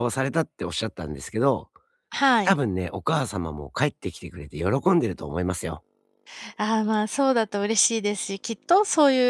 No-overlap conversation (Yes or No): Yes